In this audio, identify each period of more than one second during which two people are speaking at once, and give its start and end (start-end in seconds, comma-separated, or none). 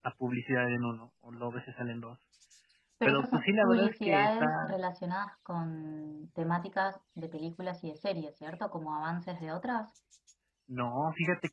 3.0-4.8